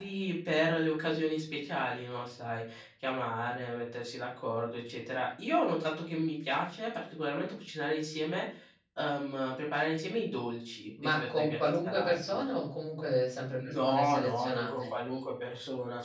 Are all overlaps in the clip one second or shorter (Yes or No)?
No